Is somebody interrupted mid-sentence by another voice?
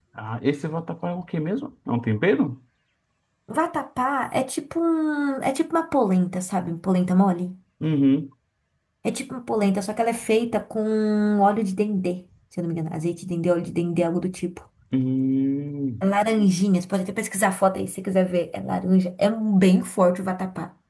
No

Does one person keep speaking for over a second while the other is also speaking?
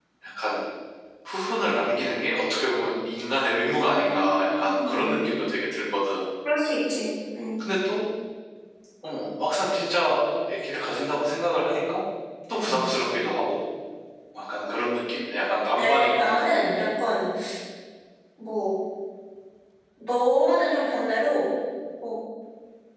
Yes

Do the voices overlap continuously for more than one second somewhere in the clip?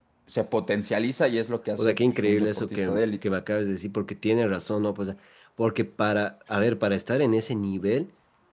Yes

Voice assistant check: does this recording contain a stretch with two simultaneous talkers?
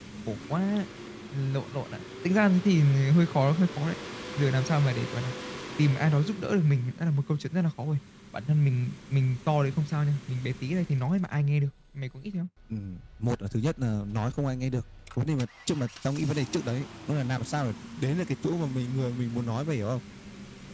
No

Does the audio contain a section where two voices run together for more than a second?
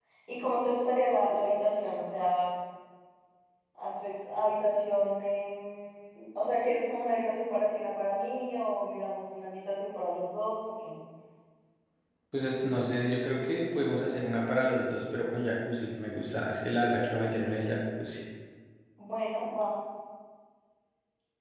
No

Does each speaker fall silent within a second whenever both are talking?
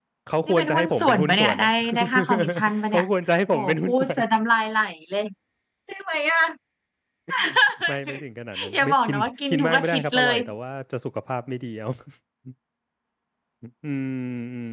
No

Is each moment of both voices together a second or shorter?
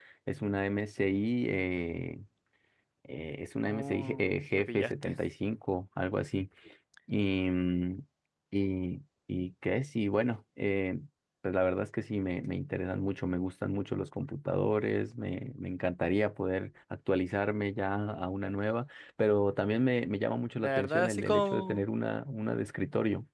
No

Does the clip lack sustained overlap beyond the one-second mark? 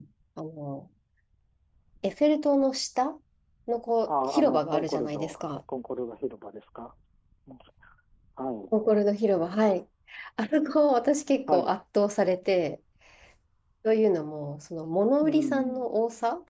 No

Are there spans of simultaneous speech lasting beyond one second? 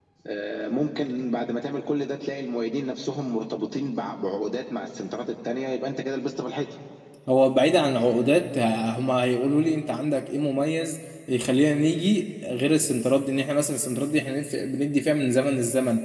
No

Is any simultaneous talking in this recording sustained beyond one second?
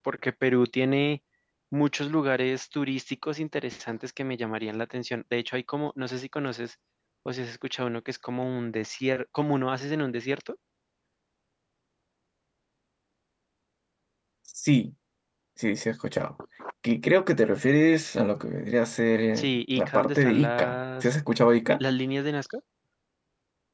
Yes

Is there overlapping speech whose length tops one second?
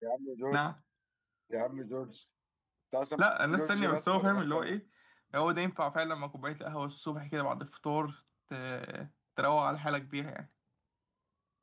Yes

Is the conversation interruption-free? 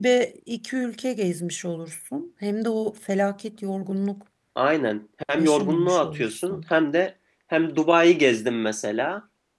No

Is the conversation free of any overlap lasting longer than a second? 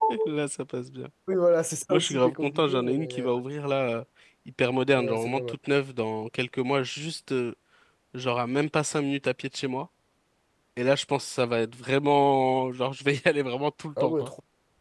No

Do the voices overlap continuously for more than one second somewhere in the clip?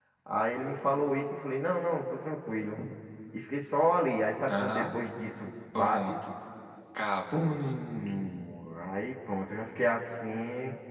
No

